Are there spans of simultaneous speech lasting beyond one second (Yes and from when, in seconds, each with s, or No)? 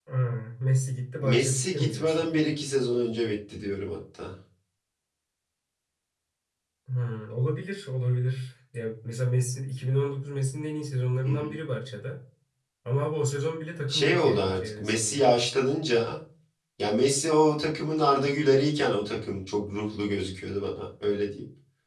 Yes, from 1.2 s